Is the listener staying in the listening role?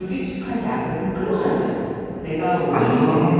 Yes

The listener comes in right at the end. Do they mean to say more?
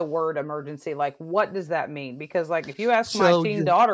No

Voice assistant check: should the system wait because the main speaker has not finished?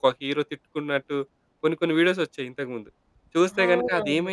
Yes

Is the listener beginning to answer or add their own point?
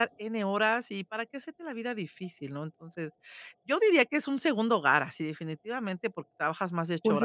Yes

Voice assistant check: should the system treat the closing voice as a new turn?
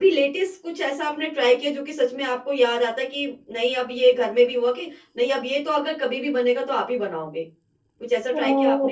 Yes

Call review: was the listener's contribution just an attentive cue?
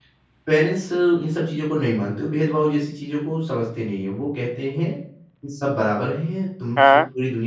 Yes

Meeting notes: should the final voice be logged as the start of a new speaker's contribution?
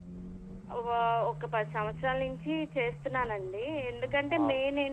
No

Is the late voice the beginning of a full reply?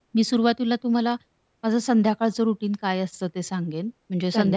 No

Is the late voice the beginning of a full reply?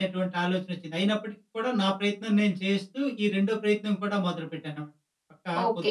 Yes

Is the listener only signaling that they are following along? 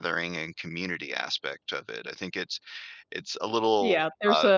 No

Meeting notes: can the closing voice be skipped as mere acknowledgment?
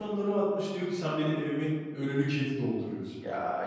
Yes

